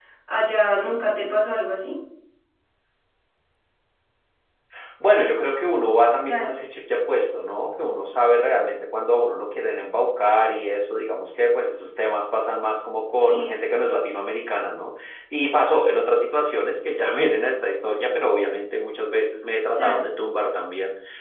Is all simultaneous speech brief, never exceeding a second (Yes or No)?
Yes